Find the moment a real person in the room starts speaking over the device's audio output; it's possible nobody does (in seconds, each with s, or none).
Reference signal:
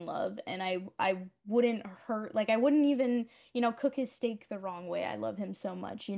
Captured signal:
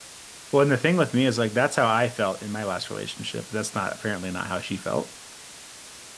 0.5 s